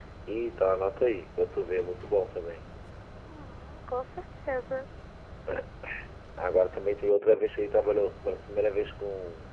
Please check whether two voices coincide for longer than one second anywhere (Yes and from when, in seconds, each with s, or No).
No